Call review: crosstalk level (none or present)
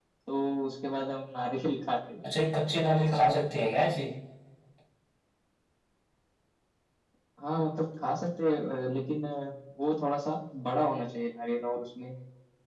none